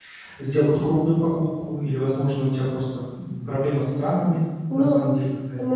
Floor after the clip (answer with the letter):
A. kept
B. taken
B